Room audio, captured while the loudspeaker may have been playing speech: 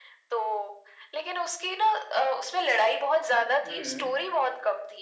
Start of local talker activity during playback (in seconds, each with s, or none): 3.6 s